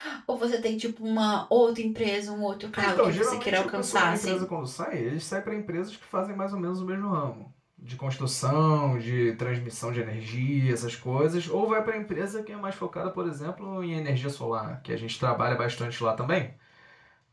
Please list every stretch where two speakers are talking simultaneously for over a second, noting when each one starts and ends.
2.8-4.4

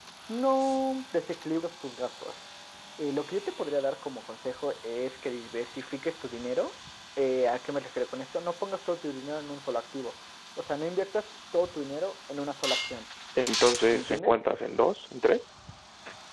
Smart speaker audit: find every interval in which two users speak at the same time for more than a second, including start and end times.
none

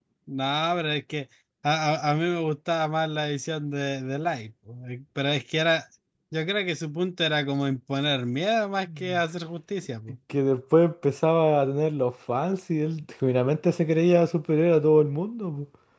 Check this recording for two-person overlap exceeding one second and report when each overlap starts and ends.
none

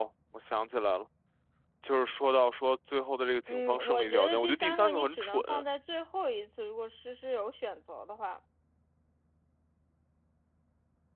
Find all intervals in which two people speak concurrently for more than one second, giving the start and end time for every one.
3.5-5.4

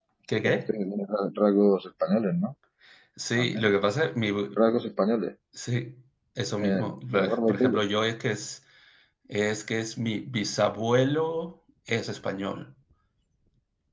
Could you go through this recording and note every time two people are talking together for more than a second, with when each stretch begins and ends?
6.6-7.8

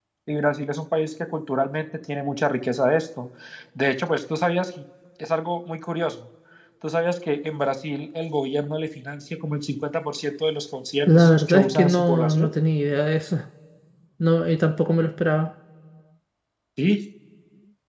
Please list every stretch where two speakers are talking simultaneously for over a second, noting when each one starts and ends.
11.1-12.5

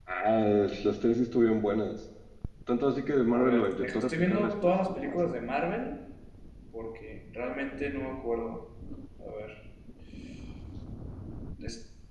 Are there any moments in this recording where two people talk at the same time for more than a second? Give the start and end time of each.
3.3-5.4

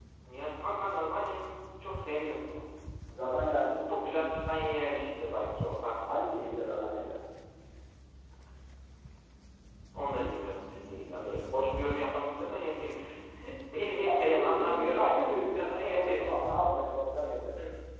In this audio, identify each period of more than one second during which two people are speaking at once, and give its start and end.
14.0-16.2

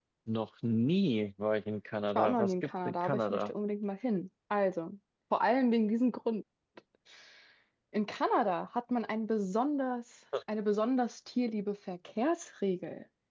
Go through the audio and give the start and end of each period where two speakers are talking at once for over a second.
2.2-3.5

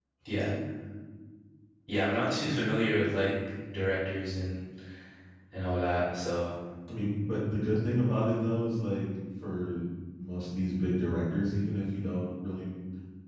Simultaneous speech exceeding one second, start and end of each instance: none

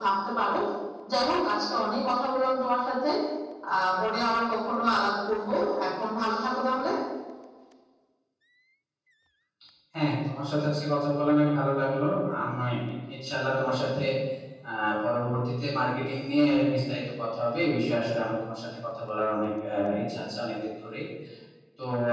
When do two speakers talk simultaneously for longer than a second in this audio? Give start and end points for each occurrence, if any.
none

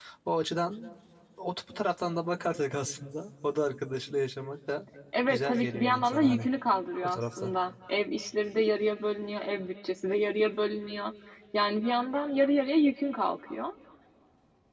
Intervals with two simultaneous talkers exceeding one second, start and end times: 5.3-6.5

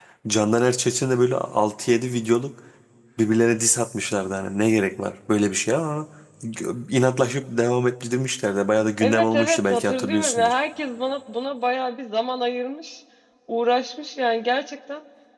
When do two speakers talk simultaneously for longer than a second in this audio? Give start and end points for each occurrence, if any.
9.0-10.5

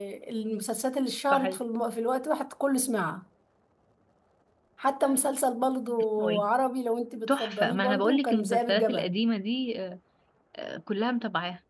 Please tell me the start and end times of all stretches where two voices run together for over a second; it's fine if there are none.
7.3-9.1

